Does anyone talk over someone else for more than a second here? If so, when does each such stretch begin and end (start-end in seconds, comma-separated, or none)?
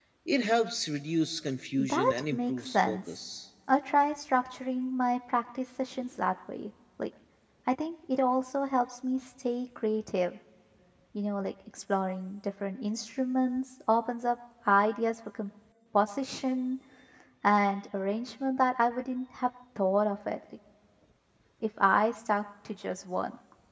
1.8-3.0